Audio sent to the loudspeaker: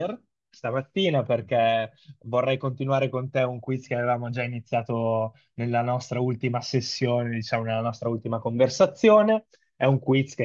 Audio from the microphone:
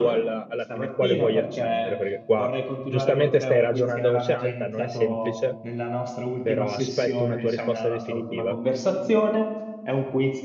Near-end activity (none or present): present